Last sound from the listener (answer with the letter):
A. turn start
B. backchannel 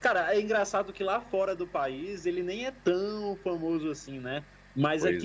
B